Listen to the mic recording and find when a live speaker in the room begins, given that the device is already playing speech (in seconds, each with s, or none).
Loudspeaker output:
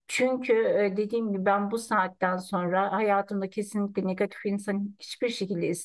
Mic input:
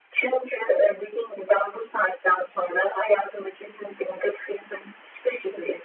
none